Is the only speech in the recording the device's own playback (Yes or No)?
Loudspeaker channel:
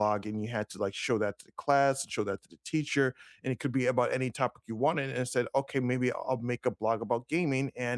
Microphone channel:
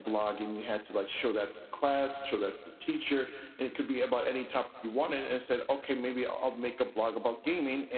Yes